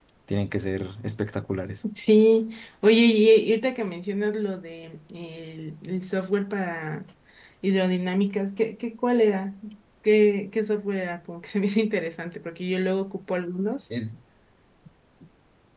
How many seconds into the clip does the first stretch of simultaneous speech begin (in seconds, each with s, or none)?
none